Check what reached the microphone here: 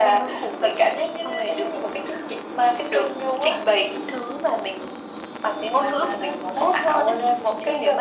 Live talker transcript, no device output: none

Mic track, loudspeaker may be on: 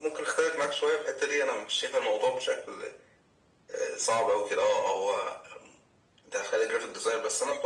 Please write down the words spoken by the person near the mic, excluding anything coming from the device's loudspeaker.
none

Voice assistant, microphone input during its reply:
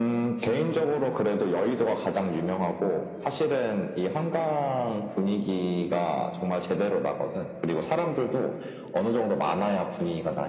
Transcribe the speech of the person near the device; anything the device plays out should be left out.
none

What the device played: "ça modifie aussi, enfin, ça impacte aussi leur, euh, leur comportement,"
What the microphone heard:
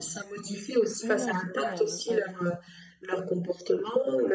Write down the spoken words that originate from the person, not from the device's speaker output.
Oui, non, c'est vrai, il y a un- un-

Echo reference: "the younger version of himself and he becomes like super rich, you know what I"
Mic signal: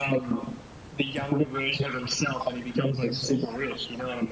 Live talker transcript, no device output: none

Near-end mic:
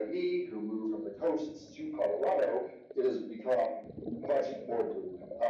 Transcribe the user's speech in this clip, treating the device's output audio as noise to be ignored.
none

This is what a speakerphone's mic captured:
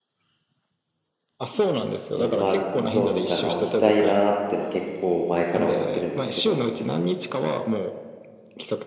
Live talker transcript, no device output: えーまあ、どうにか直したいなーってのは結構前から思ってるんですけど、

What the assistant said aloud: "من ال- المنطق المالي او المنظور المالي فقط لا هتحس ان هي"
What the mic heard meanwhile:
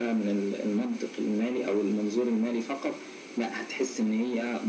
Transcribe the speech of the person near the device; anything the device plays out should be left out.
none

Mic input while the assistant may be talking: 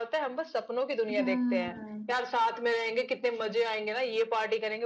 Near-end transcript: हम्म

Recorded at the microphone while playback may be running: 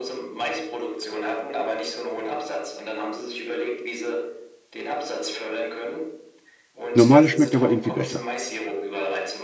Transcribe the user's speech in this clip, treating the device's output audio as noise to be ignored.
Normale schmeckt aber irgendwie besser.

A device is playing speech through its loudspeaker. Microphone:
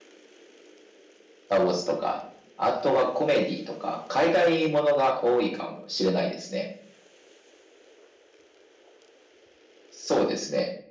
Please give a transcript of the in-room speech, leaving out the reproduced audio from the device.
none

